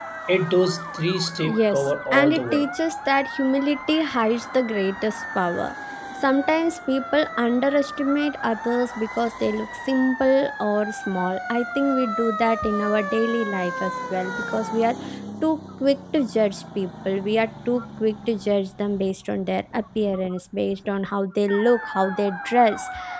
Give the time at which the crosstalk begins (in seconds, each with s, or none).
1.4 s